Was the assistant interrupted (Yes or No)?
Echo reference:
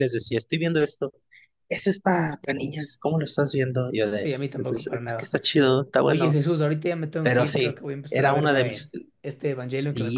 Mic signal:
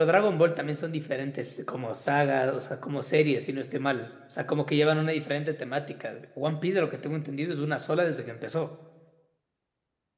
Yes